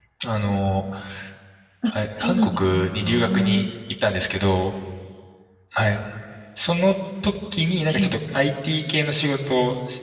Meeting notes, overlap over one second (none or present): present